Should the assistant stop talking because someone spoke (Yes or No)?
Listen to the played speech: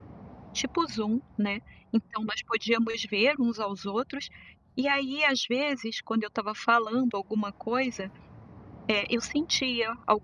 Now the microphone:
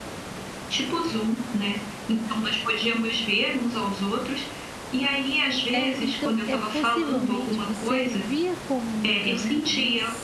Yes